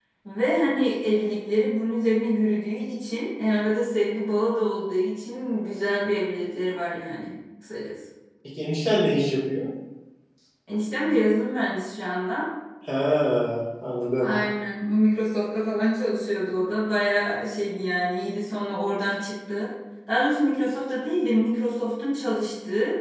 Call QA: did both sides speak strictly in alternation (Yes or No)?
Yes